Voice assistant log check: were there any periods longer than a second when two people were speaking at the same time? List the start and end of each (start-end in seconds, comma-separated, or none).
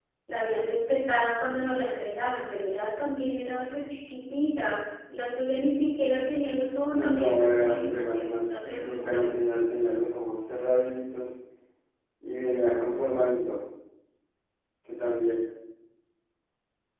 6.9-9.2